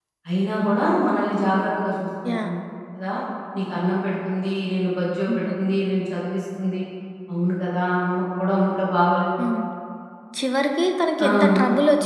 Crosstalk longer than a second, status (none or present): none